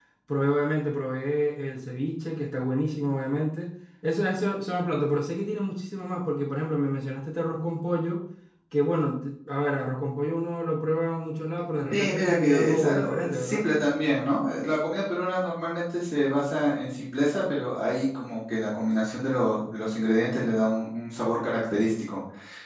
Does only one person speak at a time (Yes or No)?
No